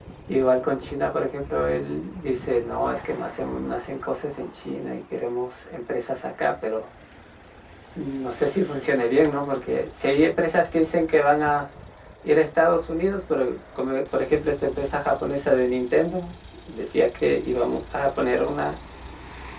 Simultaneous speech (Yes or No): No